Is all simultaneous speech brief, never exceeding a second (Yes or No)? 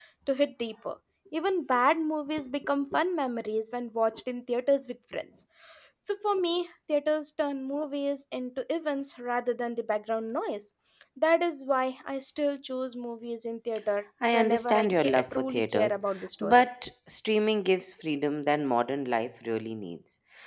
No